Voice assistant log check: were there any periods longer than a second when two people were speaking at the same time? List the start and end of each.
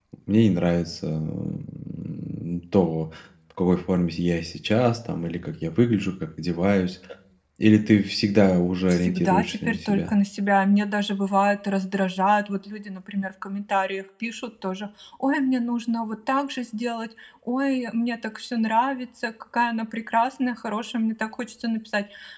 8.9-10.1

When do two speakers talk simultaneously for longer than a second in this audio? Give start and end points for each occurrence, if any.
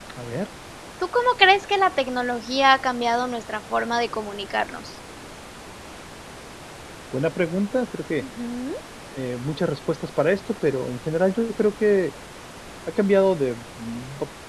none

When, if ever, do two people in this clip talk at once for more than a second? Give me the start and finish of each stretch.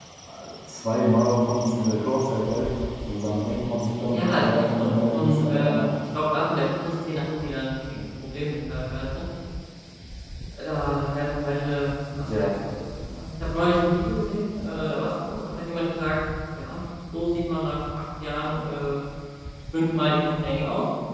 4.1-5.9

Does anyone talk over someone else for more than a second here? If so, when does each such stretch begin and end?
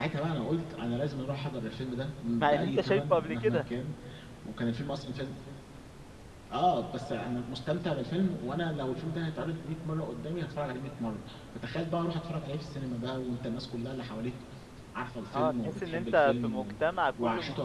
2.4-3.6, 15.3-16.7

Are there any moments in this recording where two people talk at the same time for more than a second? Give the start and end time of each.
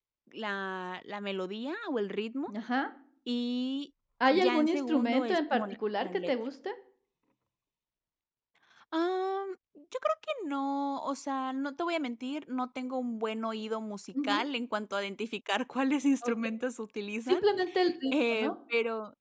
4.3-6.3

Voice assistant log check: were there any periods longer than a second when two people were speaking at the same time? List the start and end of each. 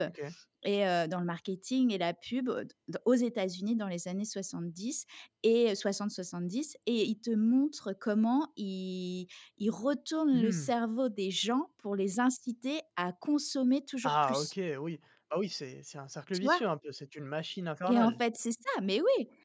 none

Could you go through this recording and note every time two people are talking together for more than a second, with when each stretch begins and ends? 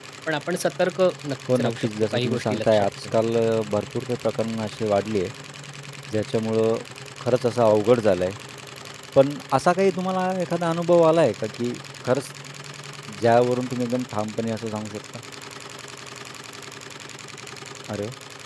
1.5-3.1

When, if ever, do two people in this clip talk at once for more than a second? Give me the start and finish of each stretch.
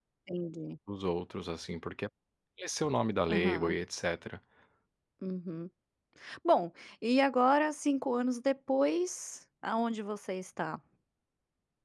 none

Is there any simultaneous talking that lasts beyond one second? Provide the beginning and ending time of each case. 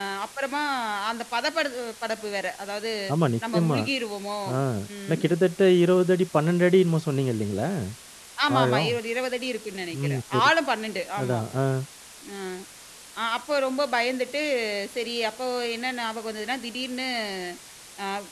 none

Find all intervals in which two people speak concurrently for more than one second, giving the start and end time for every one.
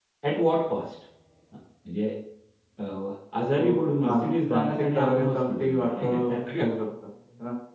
3.6-6.7

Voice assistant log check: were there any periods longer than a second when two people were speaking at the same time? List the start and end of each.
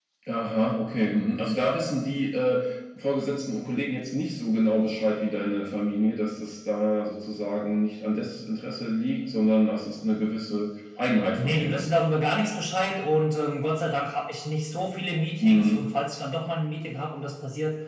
none

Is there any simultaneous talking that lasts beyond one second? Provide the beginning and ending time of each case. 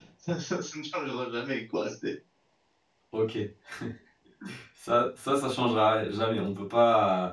none

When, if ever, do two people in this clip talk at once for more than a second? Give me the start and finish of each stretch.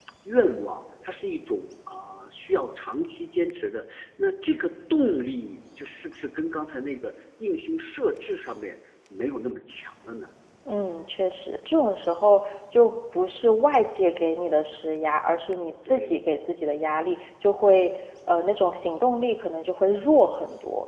none

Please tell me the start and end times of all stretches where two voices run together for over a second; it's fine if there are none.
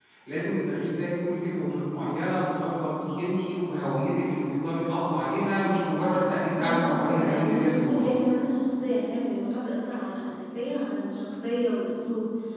6.6-8.2

